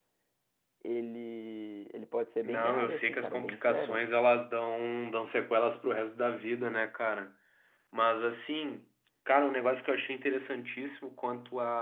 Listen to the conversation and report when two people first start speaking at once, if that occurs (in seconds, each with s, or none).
2.4 s